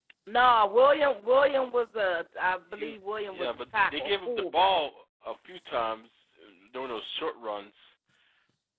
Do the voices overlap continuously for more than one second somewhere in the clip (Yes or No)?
Yes